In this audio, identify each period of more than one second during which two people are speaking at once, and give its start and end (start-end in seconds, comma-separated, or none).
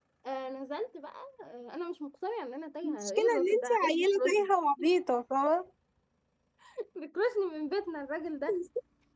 2.8-4.5